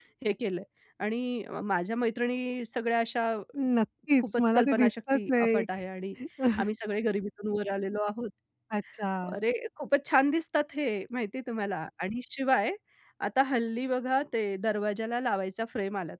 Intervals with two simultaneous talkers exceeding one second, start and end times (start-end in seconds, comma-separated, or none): 4.2-5.7